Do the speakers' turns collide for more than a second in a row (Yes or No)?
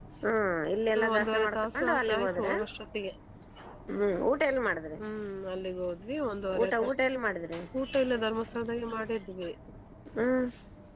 Yes